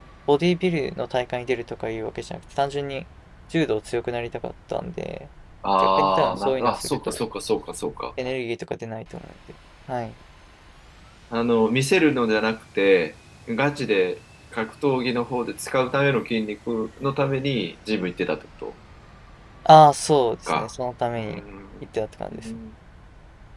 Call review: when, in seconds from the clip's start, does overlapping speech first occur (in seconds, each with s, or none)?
6.0 s